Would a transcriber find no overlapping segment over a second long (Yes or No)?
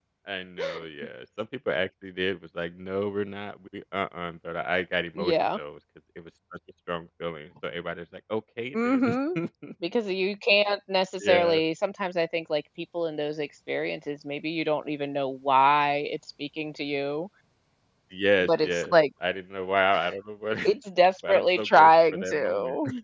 No